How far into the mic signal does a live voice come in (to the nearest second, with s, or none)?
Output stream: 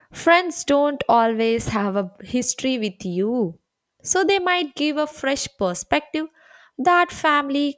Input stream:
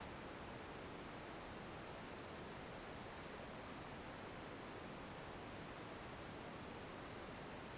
none